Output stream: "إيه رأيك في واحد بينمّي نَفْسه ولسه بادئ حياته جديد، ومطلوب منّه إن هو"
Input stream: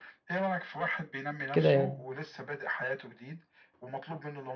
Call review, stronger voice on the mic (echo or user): user